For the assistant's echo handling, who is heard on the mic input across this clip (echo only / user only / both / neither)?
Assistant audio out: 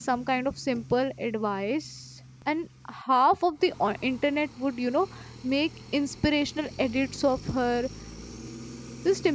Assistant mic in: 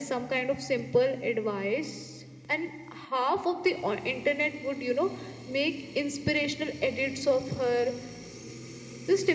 echo only